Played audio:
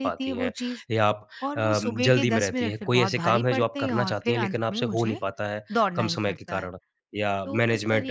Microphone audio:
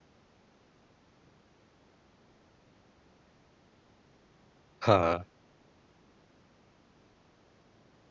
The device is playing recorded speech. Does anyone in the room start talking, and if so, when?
4.8 s

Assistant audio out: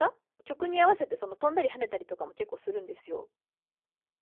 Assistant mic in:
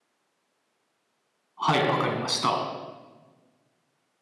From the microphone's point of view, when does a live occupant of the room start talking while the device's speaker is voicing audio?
1.6 s

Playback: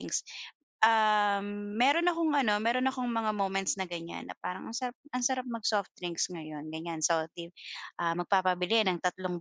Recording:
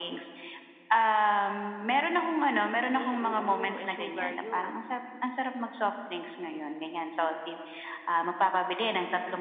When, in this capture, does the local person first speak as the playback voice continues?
2.9 s

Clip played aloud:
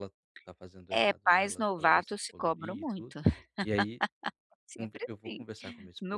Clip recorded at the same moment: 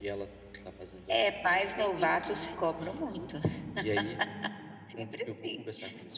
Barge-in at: 1.4 s

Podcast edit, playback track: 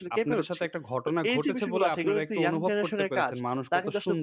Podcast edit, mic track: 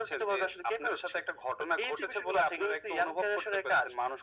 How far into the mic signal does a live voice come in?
none

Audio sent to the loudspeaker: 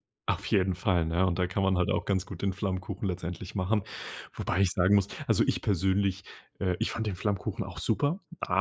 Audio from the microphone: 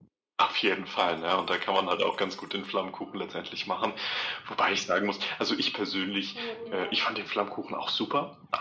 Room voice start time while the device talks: 6.3 s

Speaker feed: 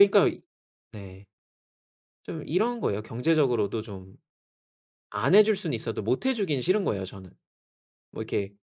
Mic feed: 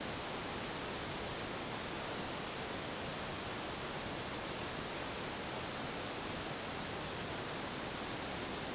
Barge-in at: none

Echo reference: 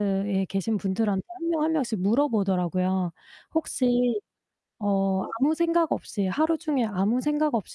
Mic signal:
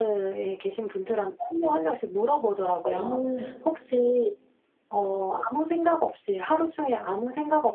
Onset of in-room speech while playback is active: 2.8 s

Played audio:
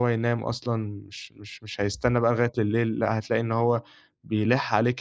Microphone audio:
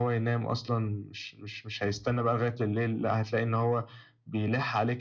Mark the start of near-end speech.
none

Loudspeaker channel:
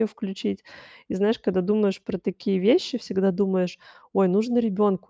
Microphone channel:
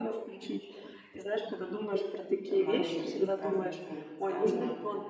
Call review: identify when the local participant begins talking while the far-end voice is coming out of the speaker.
2.5 s

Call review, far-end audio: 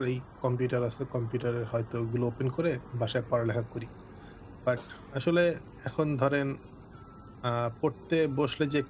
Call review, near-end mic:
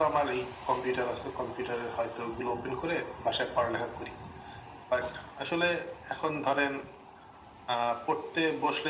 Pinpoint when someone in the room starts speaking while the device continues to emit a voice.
none

